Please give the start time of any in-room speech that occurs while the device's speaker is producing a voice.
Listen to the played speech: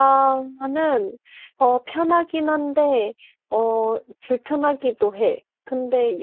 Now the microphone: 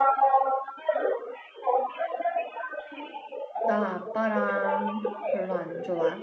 3.6 s

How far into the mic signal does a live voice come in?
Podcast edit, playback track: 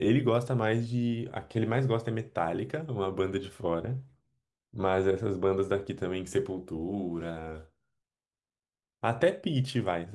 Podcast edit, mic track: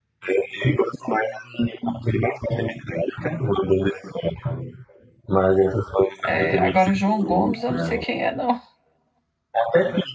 6.2 s

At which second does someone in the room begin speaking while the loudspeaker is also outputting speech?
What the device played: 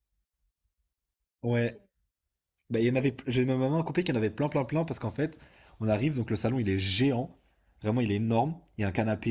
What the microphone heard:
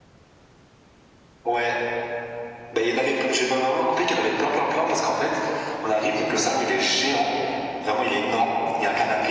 none

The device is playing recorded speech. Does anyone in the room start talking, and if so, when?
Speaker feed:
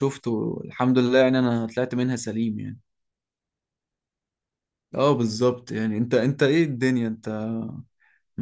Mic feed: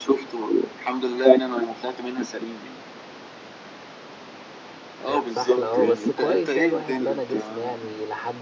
5.0 s

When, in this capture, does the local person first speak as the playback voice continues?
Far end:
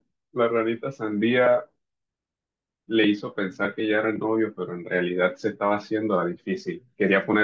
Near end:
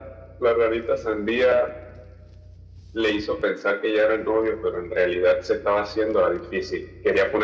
none

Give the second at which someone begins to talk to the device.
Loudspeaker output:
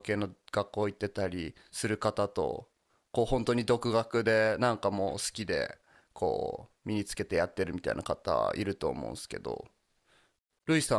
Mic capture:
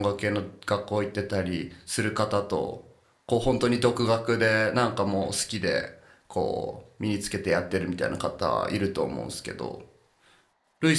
none

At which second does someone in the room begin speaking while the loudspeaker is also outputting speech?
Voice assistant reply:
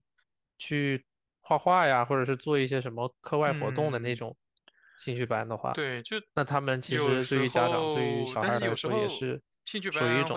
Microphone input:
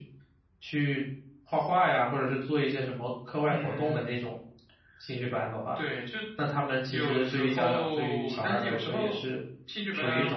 none

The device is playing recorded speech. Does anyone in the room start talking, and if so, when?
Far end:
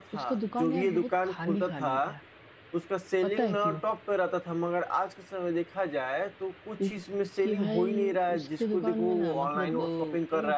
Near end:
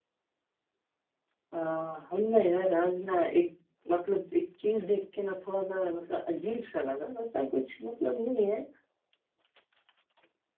1.5 s

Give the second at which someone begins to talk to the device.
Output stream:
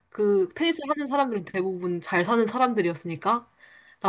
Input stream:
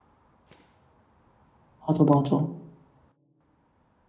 1.8 s

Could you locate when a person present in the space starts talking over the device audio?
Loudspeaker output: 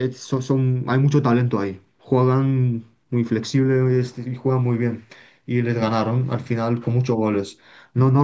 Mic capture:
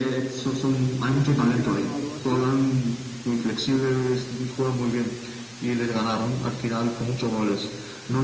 1.1 s

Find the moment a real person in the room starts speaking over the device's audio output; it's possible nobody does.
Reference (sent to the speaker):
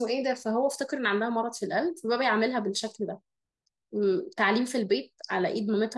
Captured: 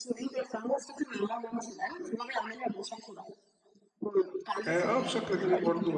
4.7 s

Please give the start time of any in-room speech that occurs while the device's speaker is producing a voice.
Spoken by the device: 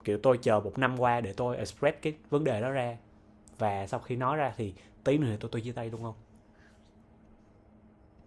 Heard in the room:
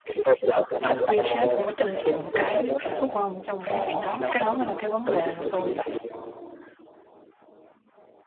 0.9 s

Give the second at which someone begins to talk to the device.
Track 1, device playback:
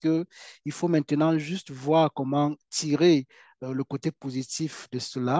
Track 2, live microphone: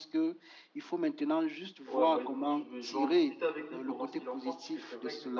1.9 s

